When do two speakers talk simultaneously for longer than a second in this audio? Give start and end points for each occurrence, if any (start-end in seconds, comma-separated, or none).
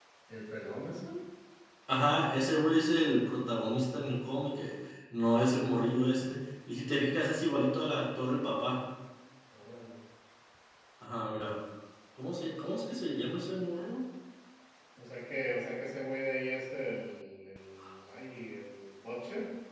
none